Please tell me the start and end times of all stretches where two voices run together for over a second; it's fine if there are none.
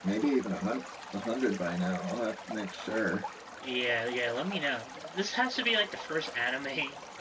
none

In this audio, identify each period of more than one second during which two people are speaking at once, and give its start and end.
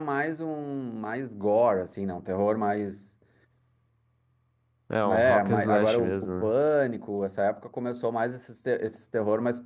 5.1-6.5

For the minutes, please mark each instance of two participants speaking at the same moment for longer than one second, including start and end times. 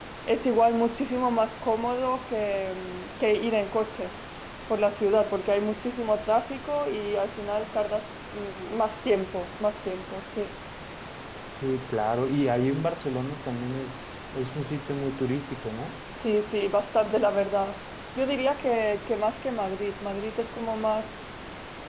none

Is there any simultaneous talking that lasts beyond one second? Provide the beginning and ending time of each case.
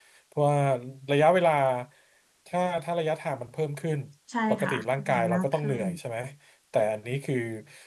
4.5-5.8

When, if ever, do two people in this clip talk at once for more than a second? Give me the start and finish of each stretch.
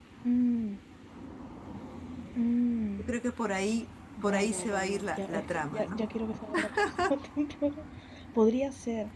4.2-6.0

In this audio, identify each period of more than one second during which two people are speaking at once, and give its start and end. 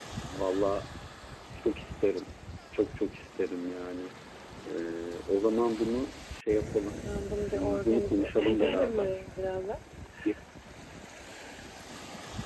7.4-9.0

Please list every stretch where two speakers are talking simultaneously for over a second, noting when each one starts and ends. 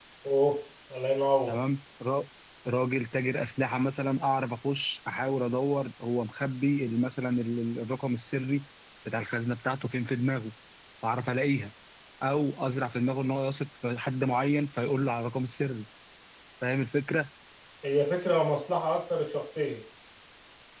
none

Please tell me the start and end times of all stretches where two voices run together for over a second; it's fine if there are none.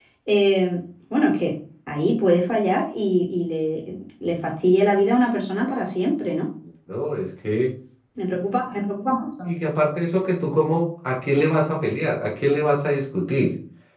none

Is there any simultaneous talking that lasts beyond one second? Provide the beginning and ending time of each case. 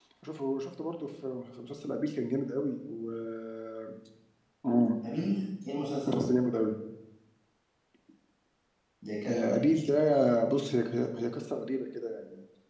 none

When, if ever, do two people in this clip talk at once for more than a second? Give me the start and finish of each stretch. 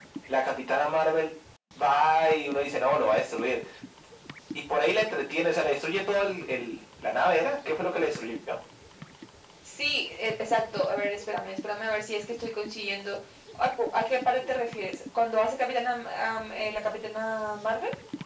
none

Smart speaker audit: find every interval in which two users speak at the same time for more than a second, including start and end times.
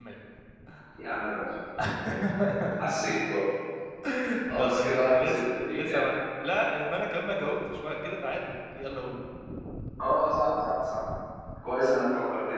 4.5-6.1

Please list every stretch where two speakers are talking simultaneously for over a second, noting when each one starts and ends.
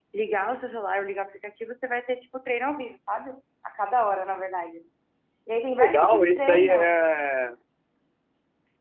5.7-7.0

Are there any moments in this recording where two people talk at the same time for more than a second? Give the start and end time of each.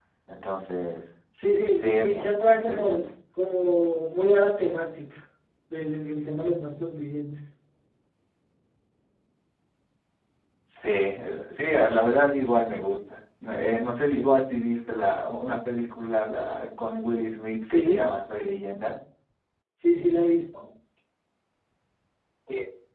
1.8-3.1

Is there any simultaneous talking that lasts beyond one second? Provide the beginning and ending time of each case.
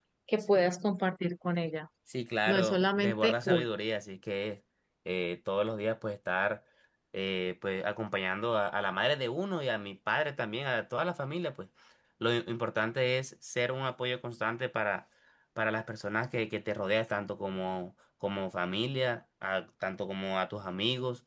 2.5-3.7

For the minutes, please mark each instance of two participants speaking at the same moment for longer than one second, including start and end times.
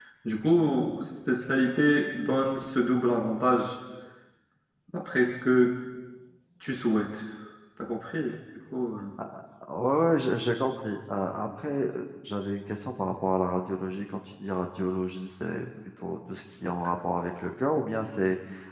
none

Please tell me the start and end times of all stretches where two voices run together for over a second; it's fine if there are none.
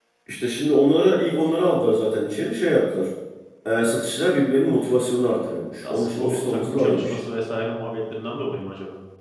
5.8-7.2

